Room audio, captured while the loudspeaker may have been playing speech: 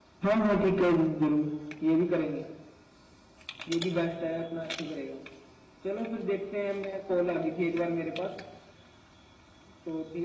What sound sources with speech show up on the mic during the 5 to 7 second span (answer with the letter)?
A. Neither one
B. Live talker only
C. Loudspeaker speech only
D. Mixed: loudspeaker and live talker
C